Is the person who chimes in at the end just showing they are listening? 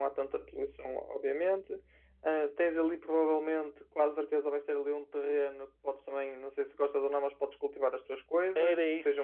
No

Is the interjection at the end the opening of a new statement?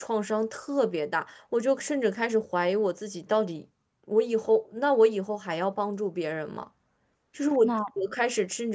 No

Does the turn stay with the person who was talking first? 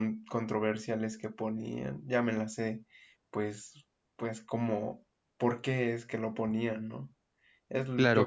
No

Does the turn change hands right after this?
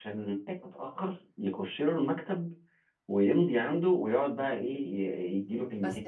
No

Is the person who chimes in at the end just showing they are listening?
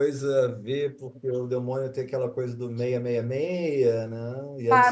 No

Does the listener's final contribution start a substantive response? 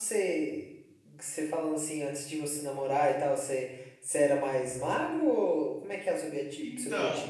Yes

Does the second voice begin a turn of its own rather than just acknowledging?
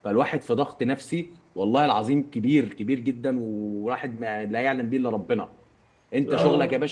No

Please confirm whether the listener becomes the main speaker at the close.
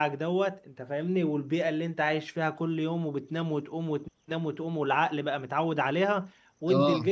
No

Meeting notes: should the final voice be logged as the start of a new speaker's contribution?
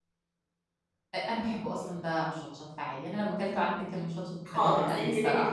Yes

